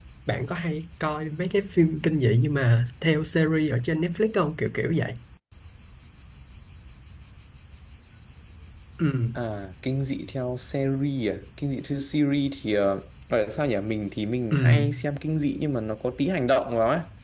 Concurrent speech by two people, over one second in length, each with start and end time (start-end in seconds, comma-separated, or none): none